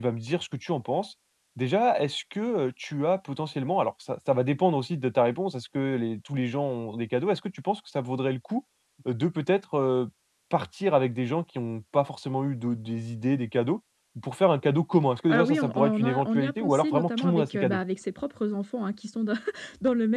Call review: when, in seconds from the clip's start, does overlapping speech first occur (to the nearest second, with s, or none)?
15 s